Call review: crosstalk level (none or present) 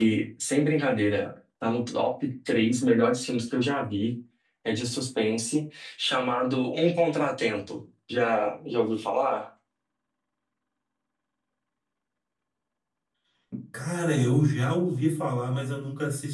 none